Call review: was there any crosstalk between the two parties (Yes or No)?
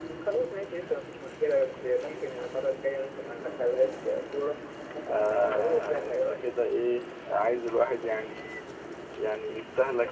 Yes